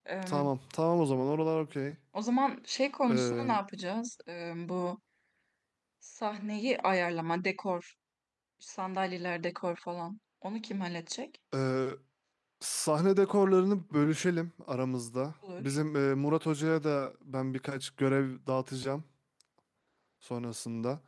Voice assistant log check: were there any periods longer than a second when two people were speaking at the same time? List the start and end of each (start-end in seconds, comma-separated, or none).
none